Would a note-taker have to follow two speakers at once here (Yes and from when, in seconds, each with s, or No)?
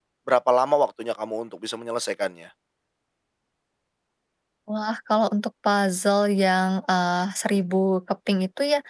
No